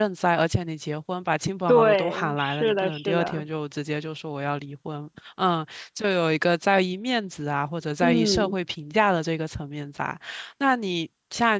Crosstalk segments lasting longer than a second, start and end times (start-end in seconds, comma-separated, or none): 1.7-3.4